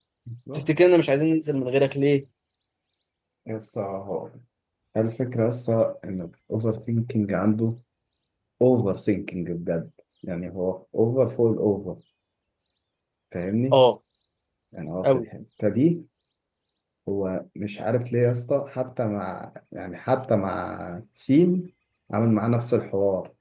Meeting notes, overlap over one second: none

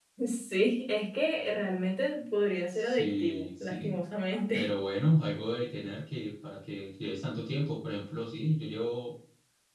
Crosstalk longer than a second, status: present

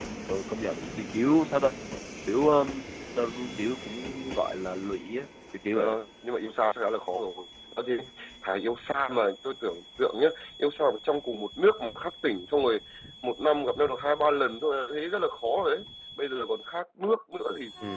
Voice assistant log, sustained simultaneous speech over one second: none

